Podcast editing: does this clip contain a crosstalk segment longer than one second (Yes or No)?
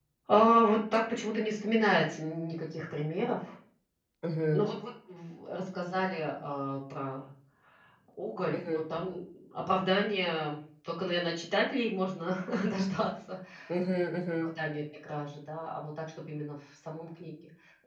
No